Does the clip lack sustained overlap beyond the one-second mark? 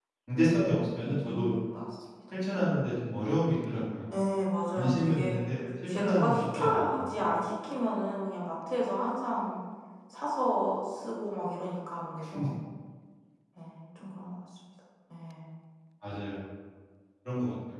No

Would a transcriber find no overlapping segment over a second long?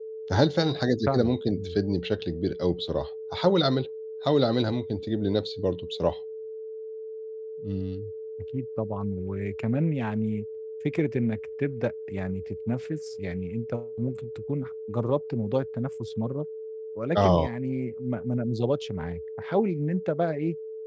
Yes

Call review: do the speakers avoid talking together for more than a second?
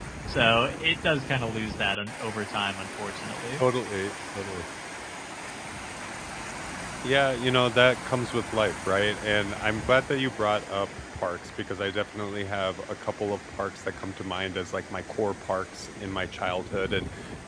Yes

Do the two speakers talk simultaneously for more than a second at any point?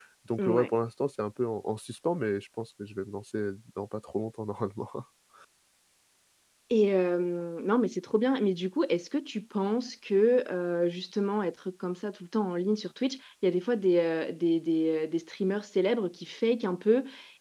No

